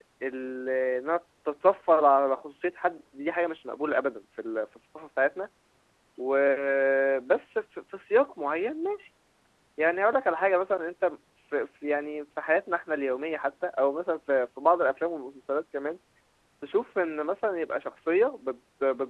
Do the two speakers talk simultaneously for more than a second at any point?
No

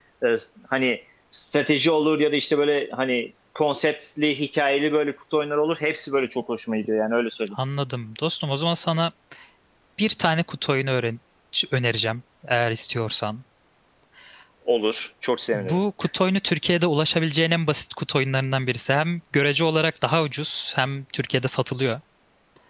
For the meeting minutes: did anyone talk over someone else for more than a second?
No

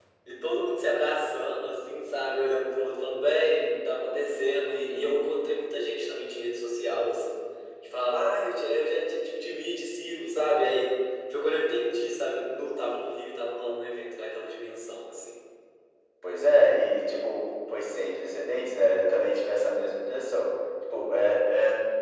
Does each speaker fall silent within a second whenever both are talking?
Yes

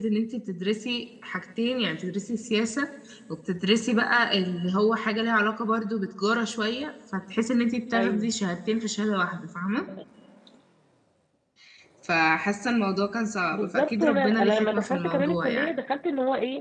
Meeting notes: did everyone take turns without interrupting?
No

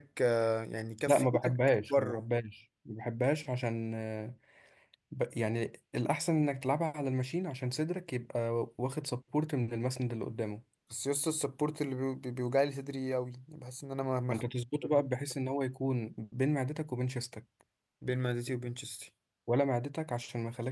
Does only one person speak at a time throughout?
No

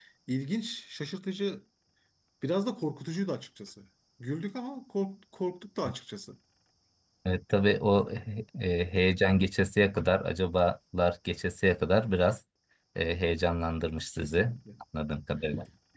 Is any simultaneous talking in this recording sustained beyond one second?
No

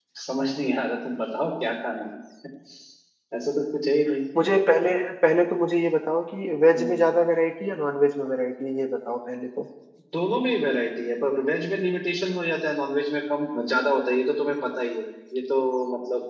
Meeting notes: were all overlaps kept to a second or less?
Yes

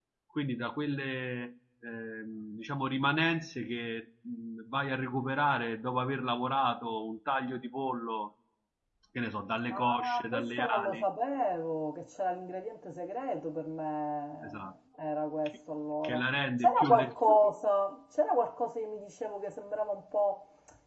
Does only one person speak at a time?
No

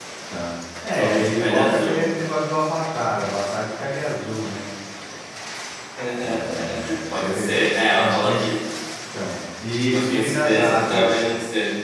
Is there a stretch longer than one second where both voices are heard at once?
Yes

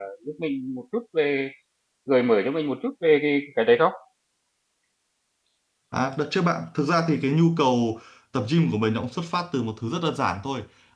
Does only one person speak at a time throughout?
Yes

